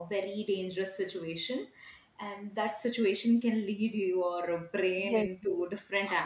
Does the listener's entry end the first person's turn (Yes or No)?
Yes